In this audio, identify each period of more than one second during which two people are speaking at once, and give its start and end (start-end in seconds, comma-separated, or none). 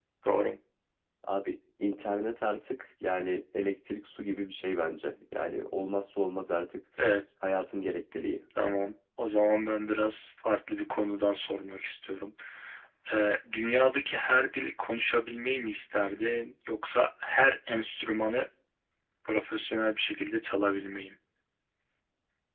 none